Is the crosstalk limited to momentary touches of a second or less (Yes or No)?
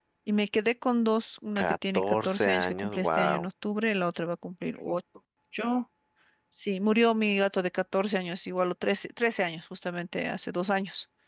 No